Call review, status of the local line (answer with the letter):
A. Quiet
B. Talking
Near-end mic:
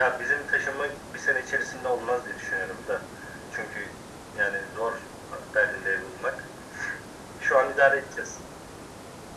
A